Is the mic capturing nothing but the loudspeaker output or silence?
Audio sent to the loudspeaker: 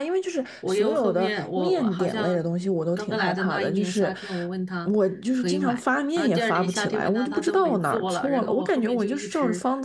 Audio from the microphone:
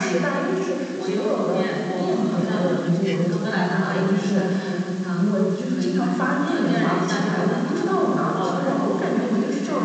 No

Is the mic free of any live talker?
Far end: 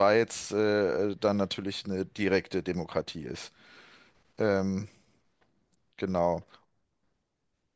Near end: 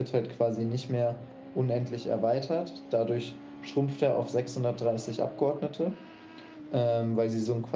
No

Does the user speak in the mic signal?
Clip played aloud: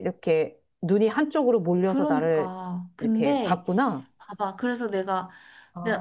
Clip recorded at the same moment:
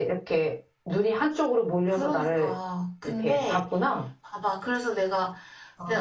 No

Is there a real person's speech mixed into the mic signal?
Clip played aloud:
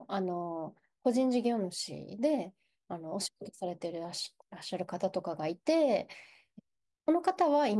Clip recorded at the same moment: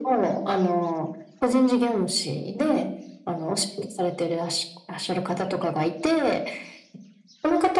No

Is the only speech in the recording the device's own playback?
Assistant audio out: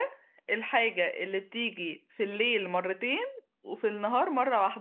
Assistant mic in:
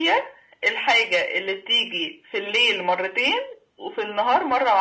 Yes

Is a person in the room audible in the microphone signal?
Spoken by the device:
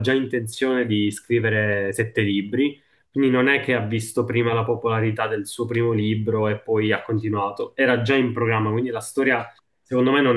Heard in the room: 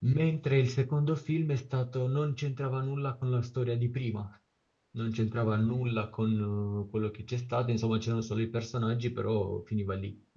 Yes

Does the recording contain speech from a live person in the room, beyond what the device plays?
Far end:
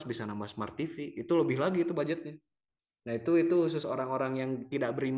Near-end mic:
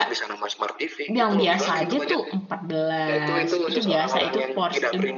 Yes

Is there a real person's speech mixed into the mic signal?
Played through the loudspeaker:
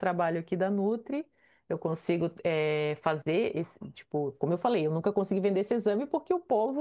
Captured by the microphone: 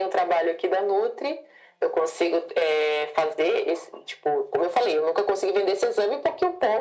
No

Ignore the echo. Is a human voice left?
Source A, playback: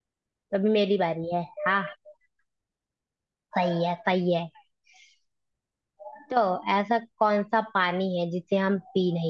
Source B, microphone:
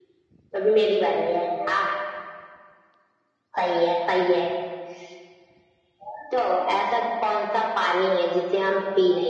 No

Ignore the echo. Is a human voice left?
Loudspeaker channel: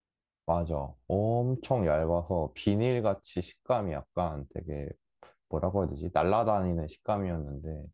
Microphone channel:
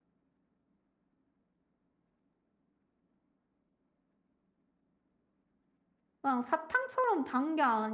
Yes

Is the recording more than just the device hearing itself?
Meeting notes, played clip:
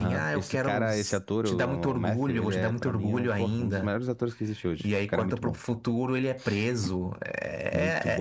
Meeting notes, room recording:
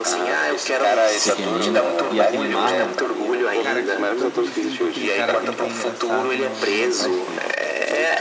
Yes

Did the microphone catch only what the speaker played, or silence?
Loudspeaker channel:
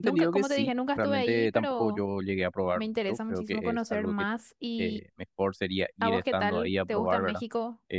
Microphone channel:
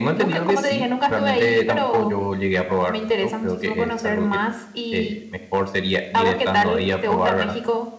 Yes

